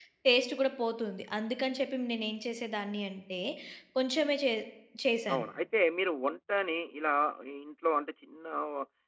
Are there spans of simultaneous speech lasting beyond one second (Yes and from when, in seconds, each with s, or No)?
No